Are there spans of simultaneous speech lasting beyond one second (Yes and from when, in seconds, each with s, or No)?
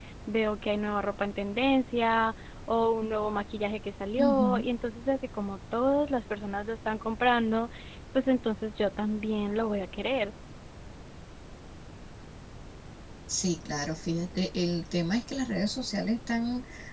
No